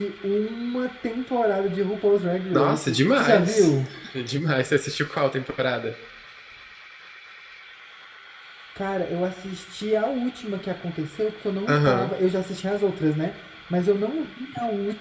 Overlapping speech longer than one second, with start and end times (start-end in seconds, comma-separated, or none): 2.5-3.7